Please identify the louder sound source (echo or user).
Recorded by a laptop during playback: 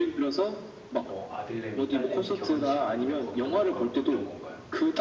echo